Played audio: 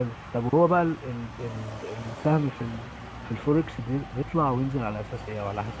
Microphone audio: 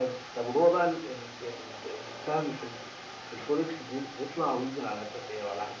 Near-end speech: none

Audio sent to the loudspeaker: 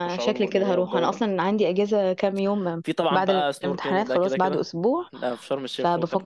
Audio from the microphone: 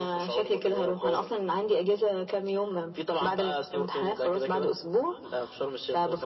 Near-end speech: none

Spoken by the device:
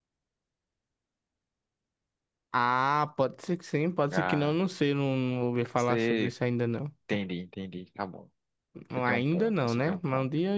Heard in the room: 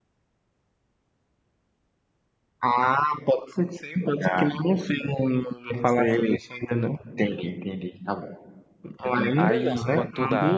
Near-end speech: present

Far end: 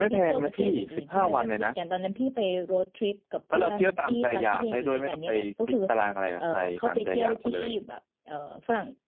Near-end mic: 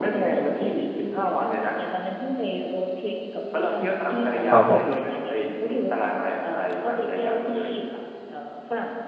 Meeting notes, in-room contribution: present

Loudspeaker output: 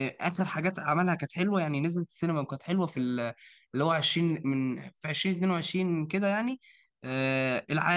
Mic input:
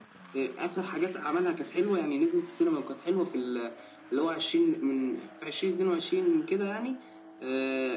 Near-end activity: none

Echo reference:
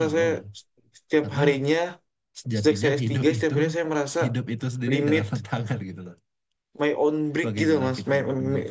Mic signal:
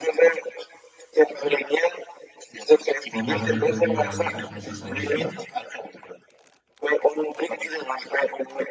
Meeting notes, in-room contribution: present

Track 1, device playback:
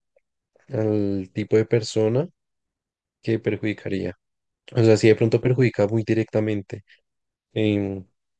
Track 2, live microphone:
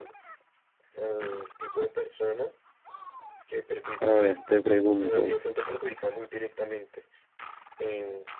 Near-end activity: present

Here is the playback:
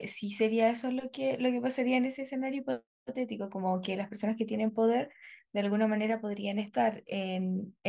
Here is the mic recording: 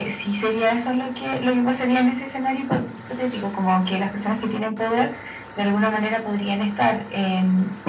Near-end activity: none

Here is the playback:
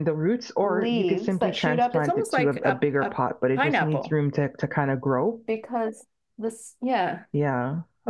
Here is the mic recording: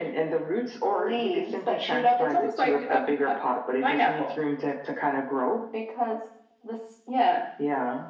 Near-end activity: none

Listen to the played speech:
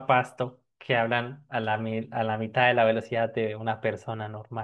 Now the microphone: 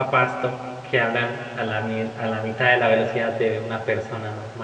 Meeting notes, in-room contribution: none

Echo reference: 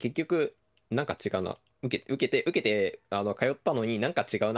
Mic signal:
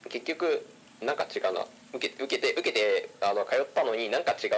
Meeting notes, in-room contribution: none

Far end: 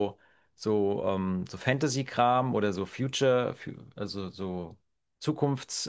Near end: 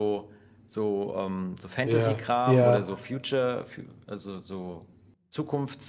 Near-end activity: present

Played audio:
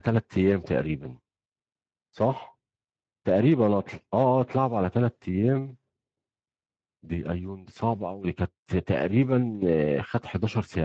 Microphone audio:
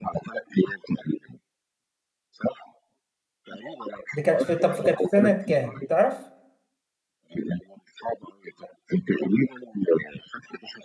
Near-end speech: present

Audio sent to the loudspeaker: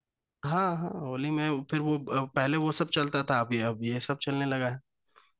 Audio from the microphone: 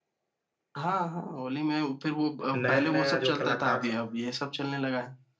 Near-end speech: present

